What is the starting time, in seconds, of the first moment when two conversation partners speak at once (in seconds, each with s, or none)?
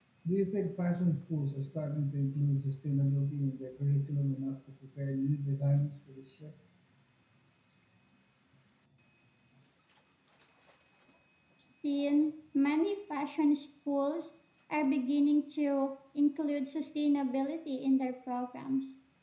none